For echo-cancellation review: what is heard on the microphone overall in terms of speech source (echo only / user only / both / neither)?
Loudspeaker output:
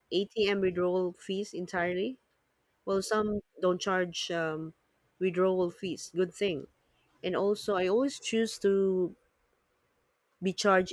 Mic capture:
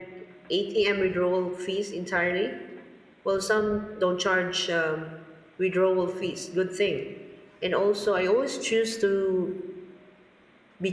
echo only